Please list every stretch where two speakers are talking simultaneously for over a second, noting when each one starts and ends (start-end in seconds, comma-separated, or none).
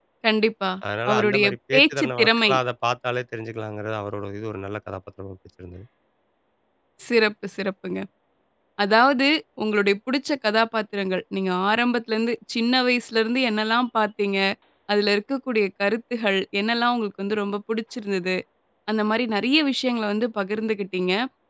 1.1-2.5